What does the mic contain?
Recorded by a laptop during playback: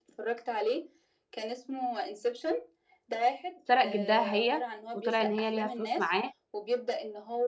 both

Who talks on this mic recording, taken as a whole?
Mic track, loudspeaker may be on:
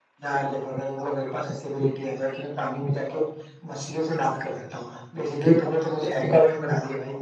echo only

